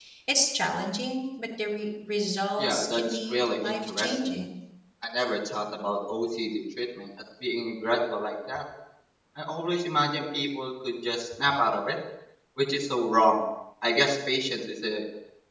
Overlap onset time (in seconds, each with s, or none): 2.6 s